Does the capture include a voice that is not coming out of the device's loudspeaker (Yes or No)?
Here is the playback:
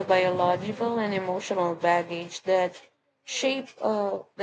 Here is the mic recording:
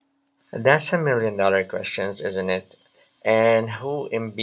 Yes